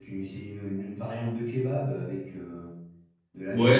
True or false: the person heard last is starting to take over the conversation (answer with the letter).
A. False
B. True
B